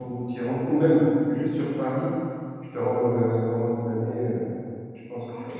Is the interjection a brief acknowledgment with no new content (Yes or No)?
No